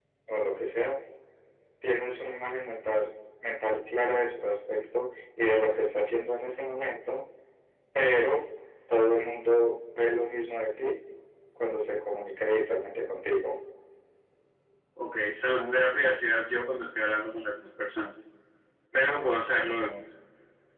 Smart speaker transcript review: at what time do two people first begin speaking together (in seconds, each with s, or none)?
none